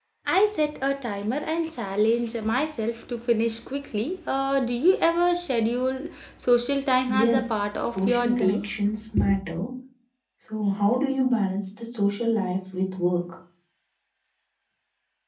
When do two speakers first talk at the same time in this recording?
7.1 s

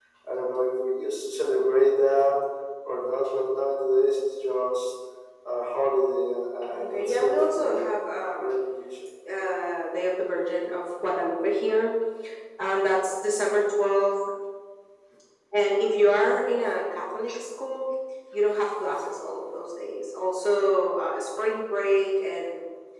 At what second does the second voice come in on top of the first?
6.6 s

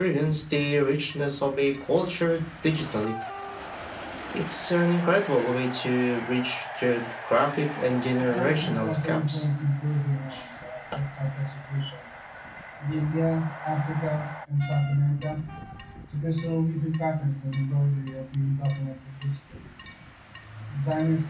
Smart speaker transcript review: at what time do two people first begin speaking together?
8.1 s

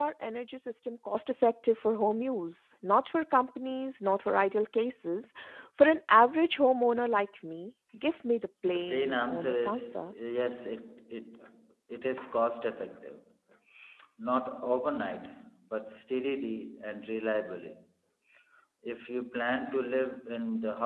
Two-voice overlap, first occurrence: 8.6 s

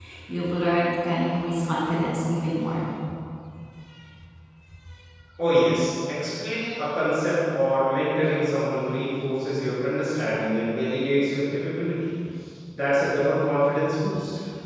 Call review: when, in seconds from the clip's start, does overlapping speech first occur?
none

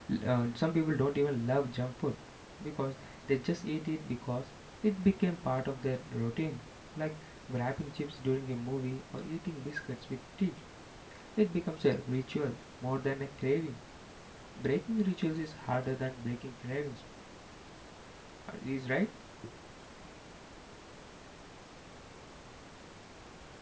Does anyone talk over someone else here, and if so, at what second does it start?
none

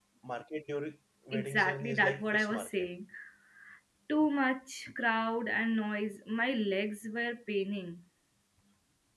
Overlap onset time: 1.3 s

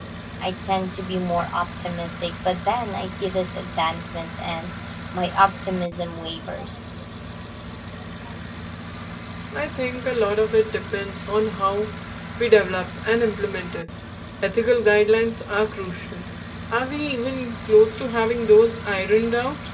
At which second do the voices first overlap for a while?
none

